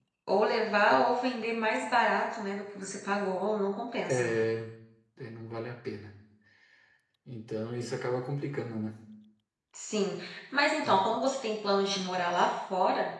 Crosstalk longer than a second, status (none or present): none